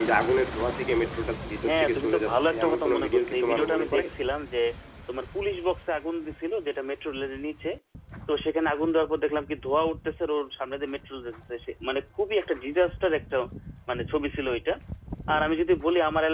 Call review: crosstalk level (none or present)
present